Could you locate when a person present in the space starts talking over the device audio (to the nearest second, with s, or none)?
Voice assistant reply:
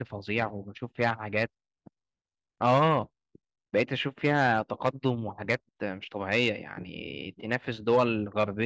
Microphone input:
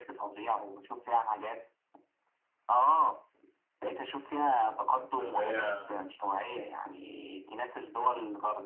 5 s